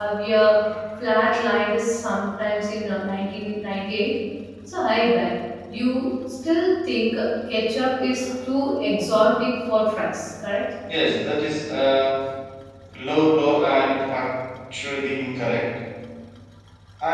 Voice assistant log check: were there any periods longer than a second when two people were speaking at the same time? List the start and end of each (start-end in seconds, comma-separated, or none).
none